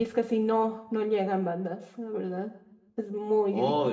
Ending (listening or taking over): taking over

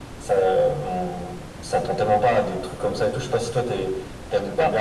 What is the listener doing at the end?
listening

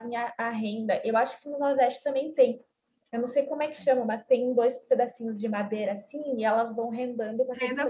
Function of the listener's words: listening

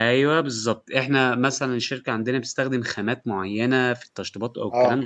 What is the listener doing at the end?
listening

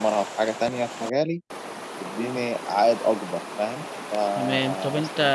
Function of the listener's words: taking over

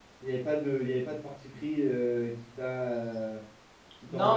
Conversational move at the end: taking over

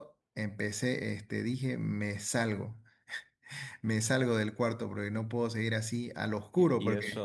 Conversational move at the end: taking over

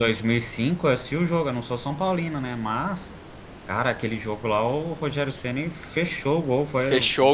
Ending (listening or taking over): taking over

